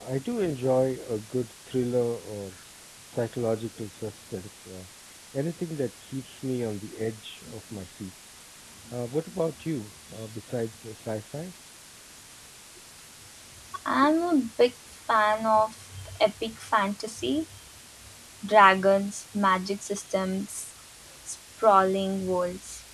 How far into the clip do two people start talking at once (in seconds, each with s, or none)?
none